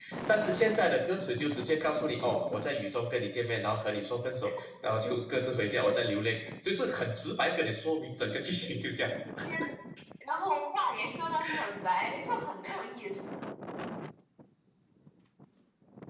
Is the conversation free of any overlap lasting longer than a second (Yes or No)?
Yes